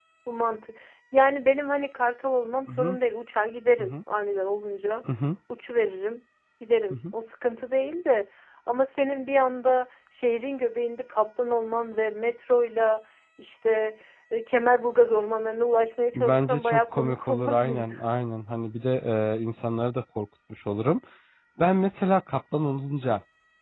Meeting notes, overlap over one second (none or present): present